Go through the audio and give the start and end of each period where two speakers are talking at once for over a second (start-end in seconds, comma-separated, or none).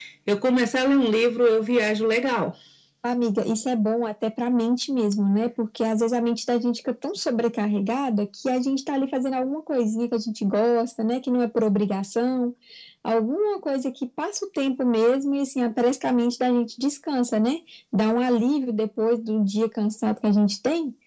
none